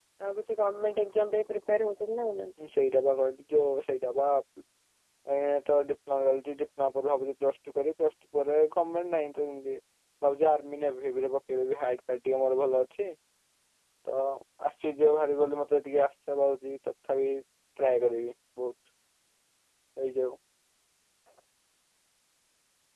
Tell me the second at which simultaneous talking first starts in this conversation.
none

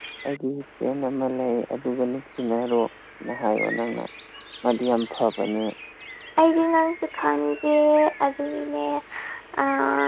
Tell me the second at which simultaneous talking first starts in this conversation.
none

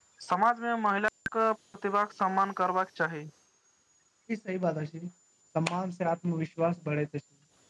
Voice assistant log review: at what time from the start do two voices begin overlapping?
none

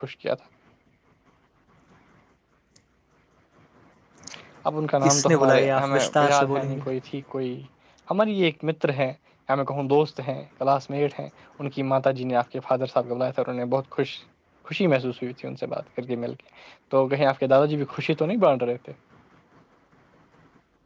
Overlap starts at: 5.0 s

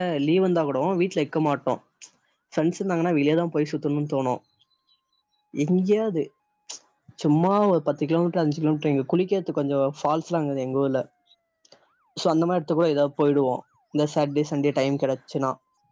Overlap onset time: none

